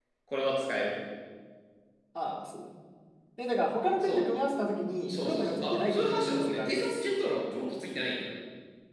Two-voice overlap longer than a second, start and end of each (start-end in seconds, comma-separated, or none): 5.1-6.8